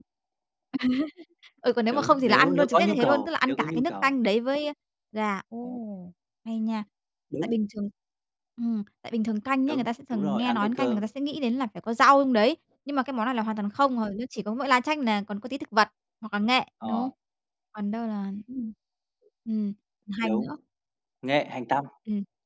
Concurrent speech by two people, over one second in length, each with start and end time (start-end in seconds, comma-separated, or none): 1.9-4.1, 9.7-11.0